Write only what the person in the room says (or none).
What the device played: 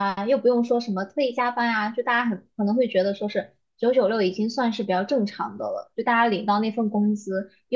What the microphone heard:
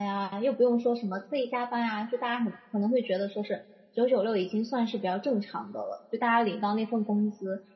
none